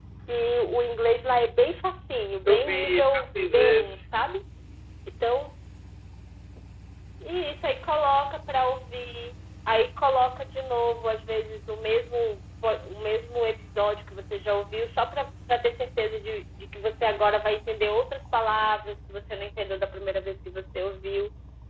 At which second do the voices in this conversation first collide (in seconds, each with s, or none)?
2.4 s